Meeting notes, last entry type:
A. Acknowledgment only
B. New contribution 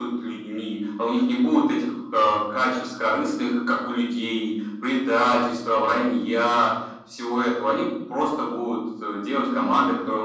A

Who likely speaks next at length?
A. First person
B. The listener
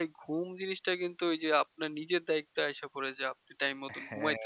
A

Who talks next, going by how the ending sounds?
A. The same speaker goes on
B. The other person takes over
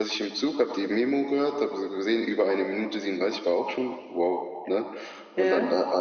A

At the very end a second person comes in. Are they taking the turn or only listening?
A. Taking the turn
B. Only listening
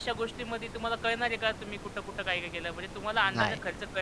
B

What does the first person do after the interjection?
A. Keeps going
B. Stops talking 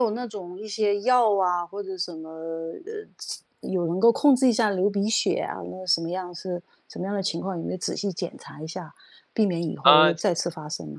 A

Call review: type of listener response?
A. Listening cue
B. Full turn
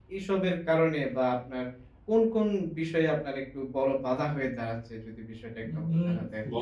B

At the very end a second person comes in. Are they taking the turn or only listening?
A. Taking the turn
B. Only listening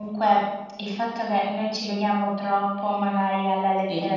B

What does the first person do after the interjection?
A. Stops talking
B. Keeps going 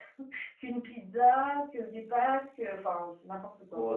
A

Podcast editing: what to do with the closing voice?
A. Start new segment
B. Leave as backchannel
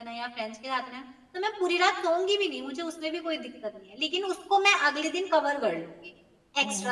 A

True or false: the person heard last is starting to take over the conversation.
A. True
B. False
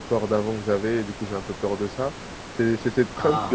B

